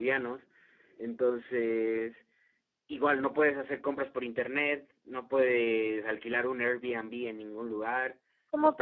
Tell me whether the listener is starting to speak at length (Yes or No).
No